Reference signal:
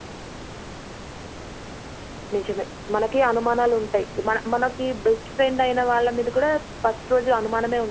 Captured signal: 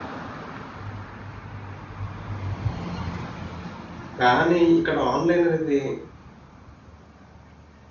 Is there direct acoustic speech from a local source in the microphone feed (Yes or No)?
Yes